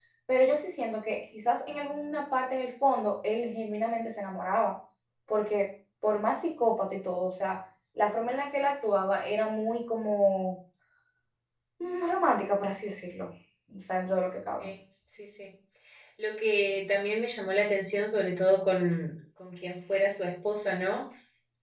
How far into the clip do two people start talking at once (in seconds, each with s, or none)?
none